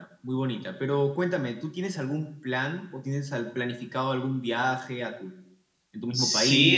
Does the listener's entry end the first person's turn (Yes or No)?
Yes